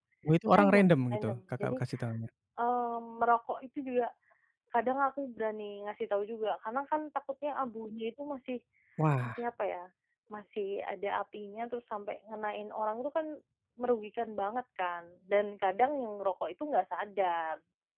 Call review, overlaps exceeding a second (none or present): present